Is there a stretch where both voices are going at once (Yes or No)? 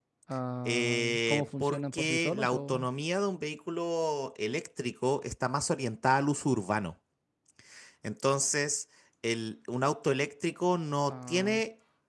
Yes